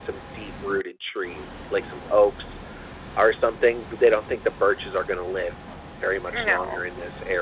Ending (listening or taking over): listening